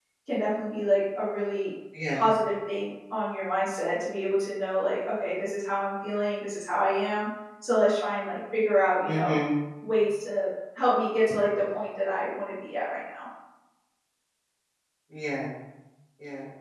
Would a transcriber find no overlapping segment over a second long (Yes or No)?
Yes